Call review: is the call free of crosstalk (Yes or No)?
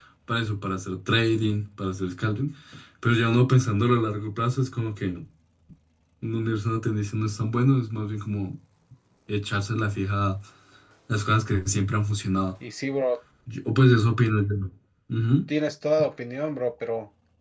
Yes